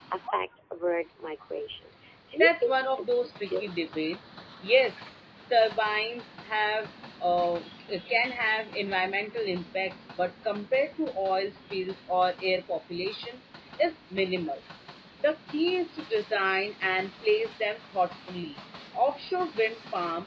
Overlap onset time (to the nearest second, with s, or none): 2 s